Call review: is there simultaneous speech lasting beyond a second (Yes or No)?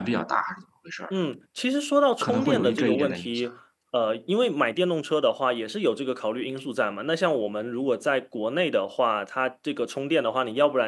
Yes